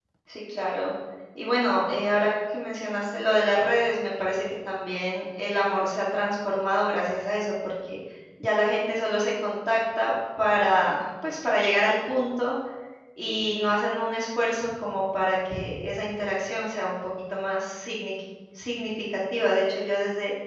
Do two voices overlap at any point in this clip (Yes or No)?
No